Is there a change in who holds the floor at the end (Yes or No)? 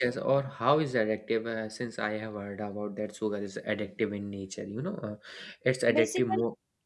Yes